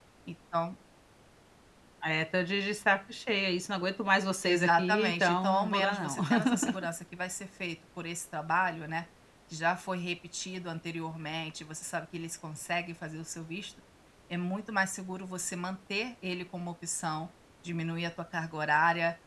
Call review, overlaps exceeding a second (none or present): present